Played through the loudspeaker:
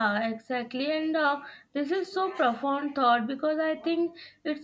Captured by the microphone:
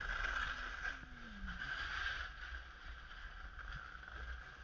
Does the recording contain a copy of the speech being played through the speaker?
No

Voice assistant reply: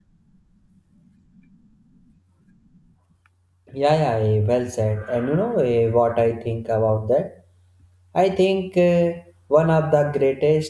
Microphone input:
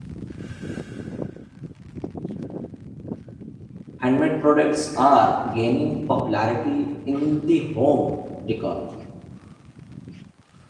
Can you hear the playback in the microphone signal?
No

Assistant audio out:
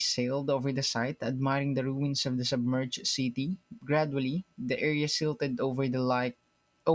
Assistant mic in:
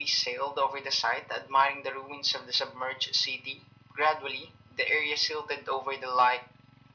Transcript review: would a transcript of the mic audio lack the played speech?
No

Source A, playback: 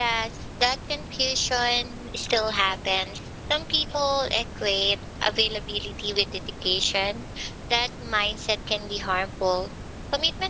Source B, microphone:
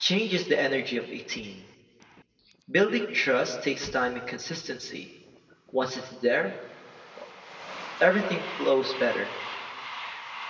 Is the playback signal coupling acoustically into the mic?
No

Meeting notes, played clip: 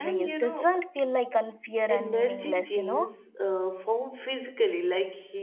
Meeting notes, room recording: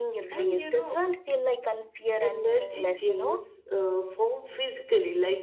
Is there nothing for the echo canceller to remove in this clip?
No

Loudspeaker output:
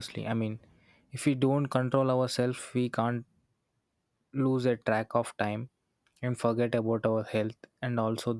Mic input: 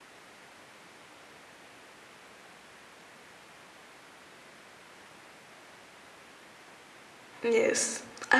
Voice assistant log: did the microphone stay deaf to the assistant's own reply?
Yes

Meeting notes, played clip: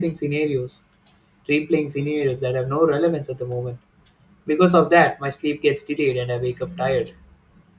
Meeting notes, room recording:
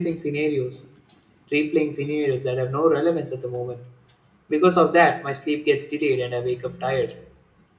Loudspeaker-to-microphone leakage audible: Yes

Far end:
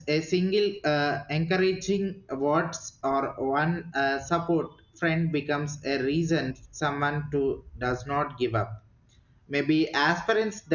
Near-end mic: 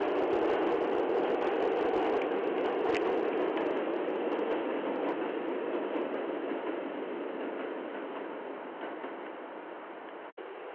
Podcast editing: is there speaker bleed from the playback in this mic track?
No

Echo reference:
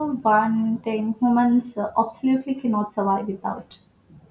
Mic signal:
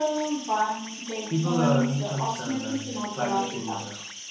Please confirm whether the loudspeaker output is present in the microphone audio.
Yes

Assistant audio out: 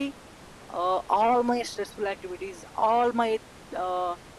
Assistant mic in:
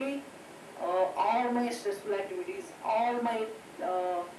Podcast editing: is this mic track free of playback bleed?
No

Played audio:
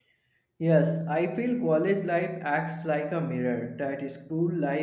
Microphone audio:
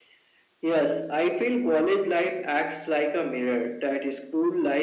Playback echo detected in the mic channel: Yes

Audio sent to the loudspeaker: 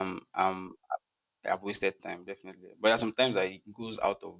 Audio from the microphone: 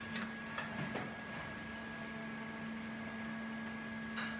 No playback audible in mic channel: Yes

